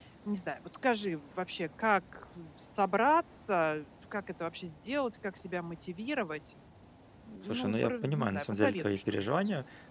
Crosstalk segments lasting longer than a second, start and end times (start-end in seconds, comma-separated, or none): 7.4-9.3